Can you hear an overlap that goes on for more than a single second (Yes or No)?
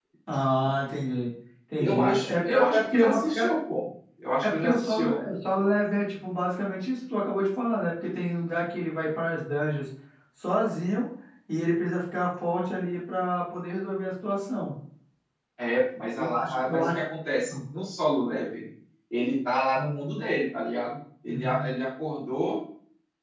Yes